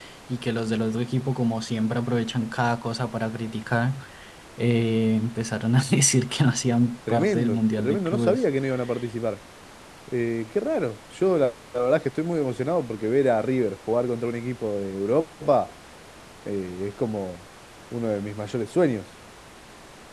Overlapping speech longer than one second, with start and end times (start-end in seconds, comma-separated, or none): 7.1-8.4